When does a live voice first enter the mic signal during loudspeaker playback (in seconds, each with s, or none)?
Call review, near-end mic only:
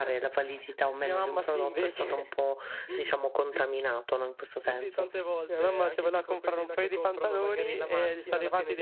4.5 s